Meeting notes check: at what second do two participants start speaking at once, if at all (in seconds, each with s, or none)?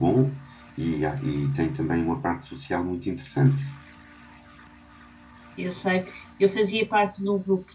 none